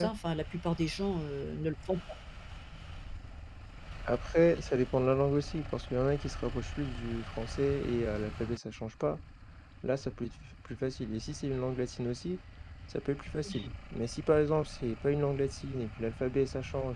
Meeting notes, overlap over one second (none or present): none